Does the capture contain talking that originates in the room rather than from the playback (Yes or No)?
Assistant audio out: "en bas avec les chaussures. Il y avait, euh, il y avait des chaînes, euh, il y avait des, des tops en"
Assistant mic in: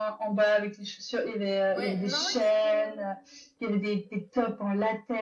Yes